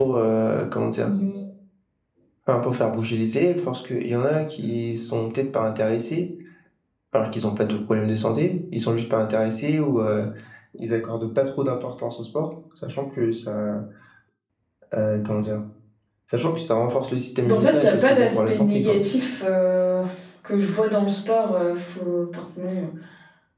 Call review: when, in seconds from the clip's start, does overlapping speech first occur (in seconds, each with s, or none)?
17.4 s